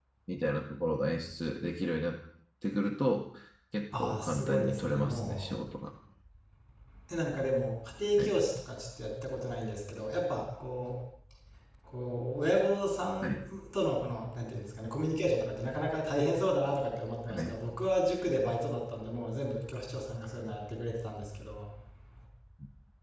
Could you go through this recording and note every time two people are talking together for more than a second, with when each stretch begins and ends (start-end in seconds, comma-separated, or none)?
4.0-5.5